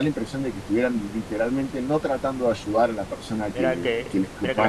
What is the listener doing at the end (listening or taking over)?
taking over